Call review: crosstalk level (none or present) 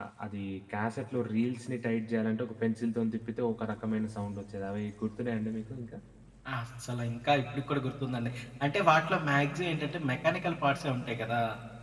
none